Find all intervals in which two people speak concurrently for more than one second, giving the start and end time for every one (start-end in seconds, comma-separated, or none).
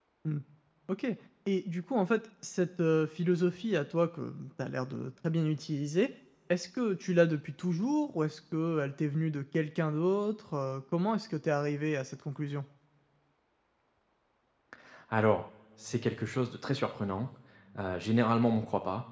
none